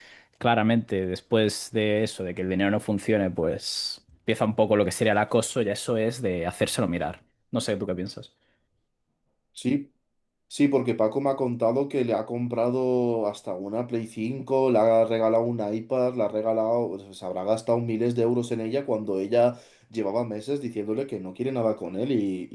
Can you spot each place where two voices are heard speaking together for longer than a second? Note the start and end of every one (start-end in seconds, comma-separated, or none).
none